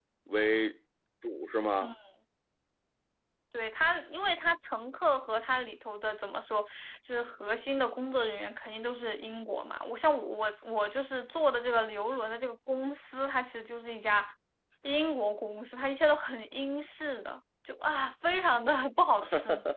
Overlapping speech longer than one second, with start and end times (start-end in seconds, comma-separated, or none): none